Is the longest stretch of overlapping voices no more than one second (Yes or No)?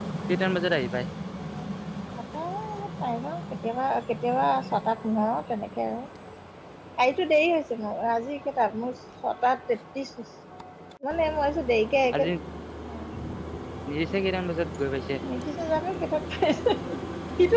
Yes